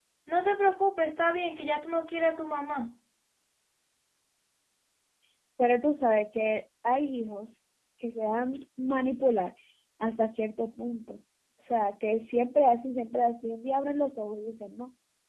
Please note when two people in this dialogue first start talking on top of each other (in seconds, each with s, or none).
none